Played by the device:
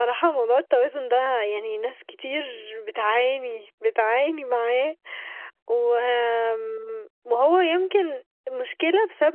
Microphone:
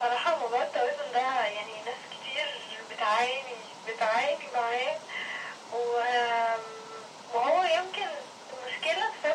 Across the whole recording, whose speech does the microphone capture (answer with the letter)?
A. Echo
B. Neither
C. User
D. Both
A